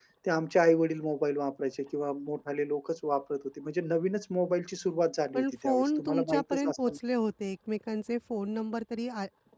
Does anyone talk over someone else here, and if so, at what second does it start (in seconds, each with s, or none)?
5.3 s